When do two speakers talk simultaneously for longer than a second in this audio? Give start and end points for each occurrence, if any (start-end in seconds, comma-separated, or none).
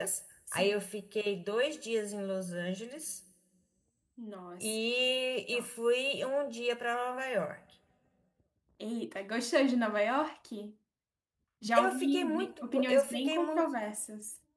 11.7-13.7